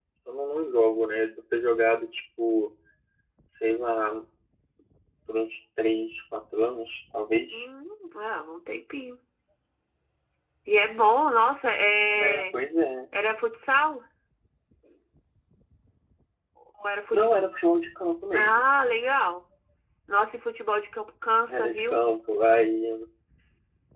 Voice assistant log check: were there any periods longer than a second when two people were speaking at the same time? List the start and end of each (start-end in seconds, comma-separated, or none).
none